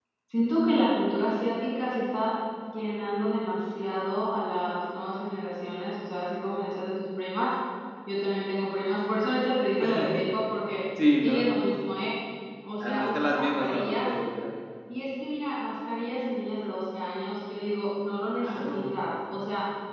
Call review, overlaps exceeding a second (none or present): present